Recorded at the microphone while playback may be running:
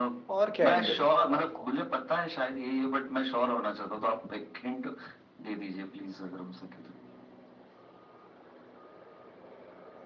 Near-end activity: present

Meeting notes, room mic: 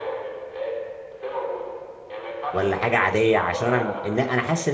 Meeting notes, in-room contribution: present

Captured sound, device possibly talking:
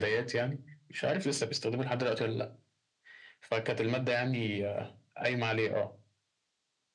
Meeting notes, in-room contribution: none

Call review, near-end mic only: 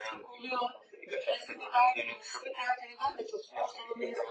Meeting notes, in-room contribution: none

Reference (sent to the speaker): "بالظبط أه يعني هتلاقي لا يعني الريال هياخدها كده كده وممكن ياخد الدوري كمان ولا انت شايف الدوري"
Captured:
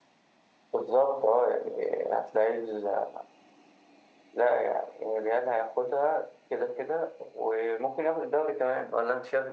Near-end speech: none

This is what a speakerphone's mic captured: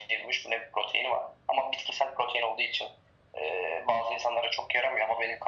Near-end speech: none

